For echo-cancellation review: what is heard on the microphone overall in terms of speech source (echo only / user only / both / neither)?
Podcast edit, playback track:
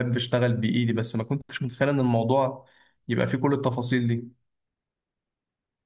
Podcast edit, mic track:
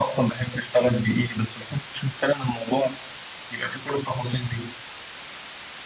echo only